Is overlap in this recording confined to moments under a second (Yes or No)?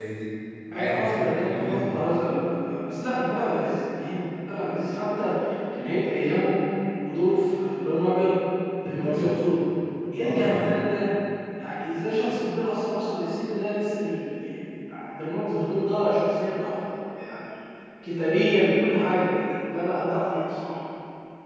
No